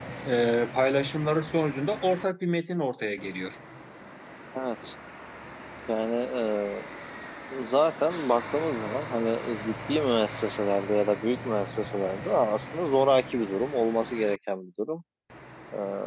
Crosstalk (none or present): none